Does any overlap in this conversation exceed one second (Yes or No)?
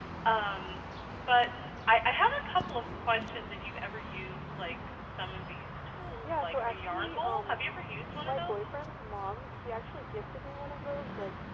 Yes